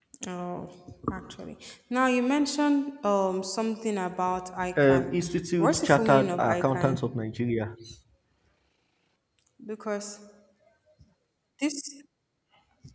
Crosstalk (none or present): present